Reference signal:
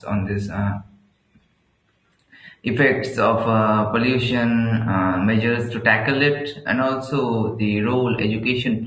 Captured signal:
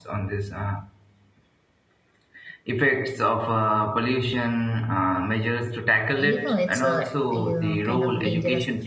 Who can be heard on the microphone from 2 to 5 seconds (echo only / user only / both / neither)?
echo only